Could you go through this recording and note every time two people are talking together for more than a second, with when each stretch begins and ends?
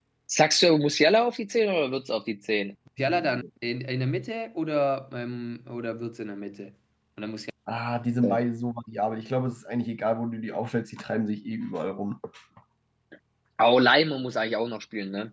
none

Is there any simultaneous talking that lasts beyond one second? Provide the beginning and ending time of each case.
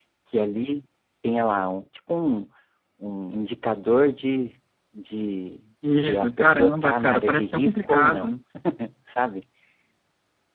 6.0-8.4

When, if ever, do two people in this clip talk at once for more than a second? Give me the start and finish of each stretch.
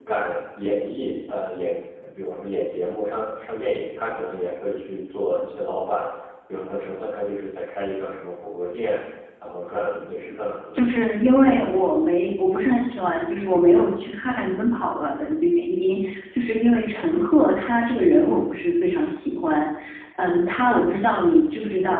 none

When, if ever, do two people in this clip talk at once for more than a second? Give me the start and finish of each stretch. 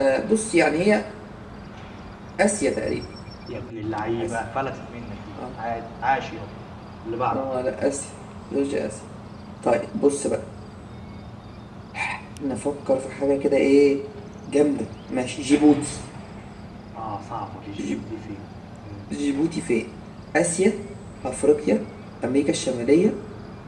none

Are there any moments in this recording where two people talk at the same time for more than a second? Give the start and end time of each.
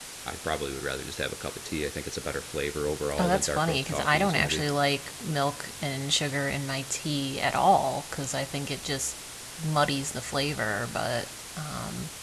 3.2-4.6

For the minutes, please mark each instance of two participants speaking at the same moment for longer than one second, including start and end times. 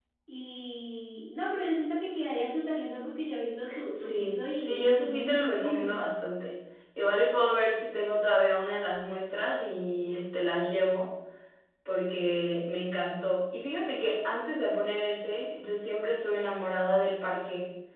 4.0-5.9

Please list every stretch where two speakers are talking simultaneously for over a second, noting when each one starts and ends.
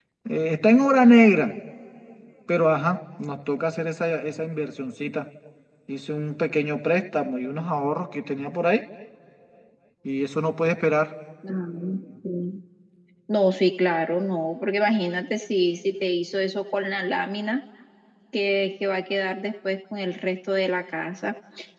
none

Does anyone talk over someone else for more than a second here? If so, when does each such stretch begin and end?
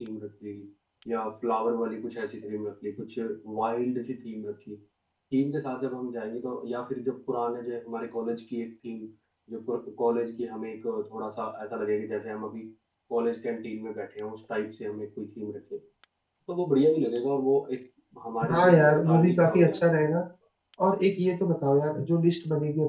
18.5-19.9

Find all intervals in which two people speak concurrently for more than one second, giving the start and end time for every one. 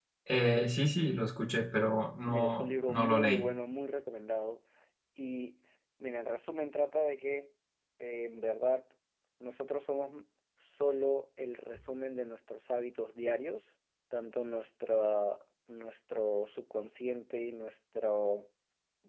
2.3-3.5

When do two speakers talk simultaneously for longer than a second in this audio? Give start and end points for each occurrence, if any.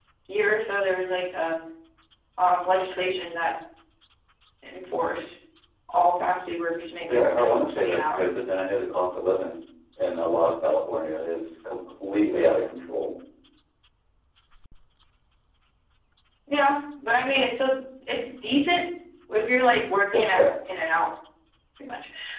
7.0-8.3

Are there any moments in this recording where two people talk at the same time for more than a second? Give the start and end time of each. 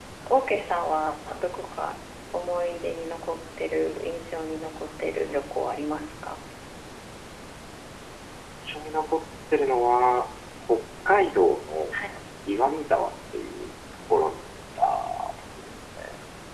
none

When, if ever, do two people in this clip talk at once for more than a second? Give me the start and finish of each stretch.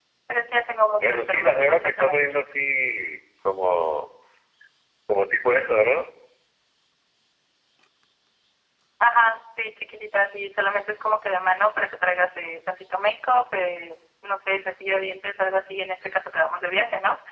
1.0-2.4

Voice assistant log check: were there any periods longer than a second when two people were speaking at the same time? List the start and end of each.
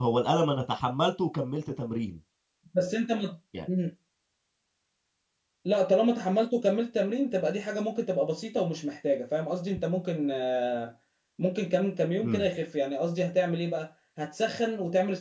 none

